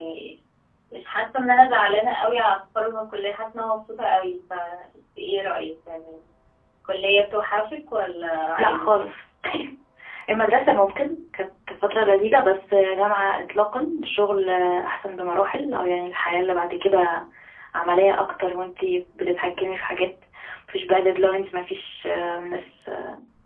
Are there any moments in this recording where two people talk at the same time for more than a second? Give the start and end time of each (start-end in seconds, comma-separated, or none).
none